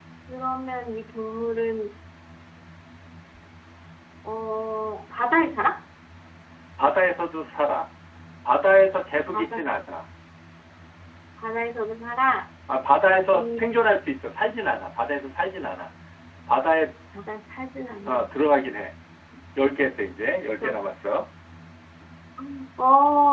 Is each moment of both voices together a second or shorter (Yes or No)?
Yes